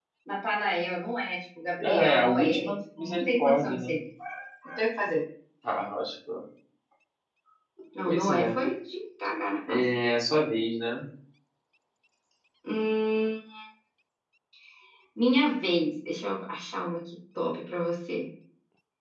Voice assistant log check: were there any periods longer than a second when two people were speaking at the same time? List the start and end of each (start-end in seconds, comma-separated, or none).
1.8-3.9